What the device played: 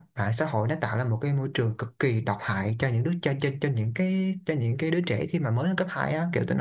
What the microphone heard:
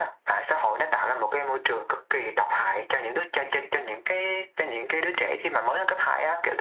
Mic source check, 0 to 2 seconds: echo only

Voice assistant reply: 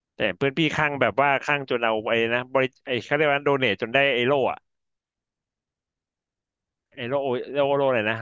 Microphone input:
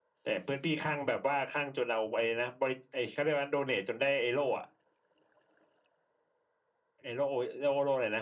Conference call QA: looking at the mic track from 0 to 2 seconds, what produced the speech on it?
echo only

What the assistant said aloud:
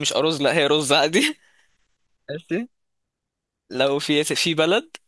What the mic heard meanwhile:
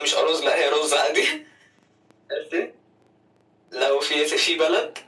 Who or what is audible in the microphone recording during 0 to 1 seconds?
echo only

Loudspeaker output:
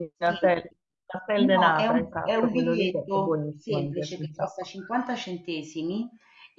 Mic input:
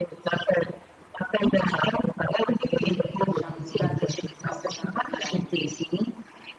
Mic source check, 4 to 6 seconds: both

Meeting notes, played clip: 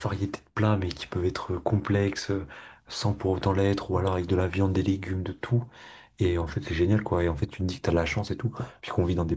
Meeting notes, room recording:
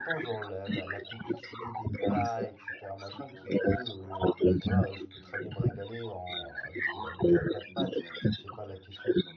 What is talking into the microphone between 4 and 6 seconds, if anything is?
both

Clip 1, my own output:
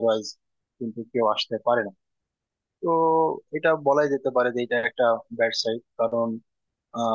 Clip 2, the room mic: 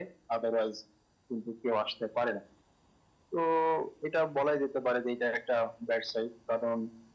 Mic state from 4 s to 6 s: echo only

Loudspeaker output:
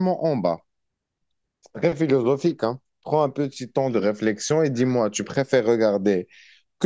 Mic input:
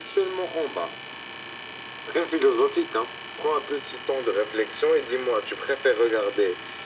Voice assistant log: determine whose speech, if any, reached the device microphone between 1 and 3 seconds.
echo only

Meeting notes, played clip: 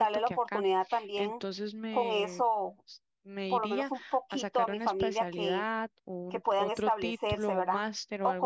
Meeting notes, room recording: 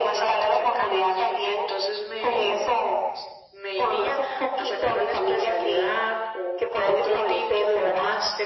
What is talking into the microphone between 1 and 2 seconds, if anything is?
echo only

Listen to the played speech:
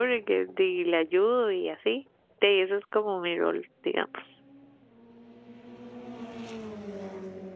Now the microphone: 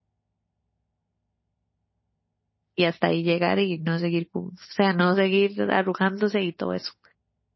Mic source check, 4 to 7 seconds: user only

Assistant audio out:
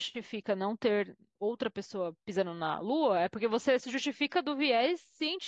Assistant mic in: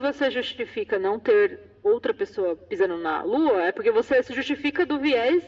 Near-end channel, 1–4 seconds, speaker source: echo only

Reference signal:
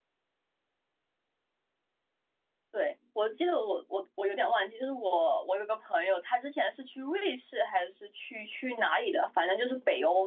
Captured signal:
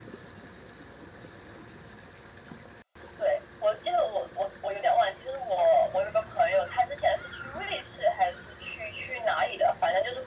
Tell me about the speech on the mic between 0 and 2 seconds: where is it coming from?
neither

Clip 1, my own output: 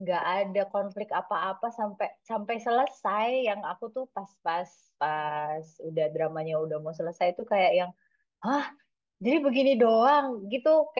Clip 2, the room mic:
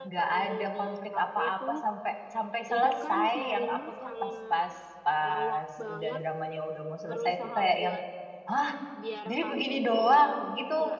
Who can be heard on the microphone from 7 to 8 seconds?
both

